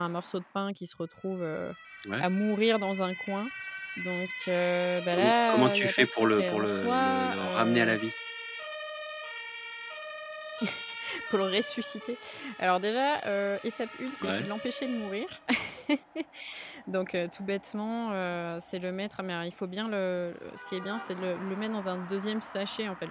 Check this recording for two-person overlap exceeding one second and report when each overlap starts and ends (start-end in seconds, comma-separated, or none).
5.1-8.0